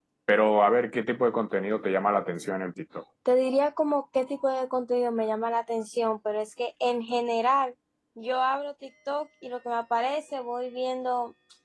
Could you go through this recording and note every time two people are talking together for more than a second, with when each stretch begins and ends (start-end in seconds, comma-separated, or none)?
none